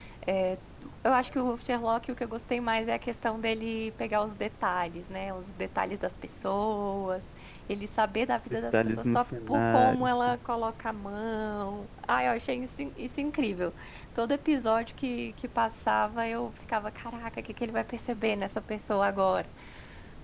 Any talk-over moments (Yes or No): Yes